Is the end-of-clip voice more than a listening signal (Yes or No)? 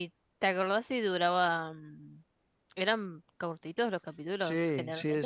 Yes